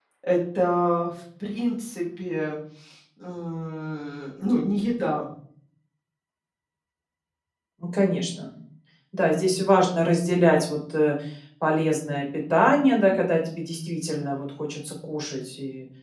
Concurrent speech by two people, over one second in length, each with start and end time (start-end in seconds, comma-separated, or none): none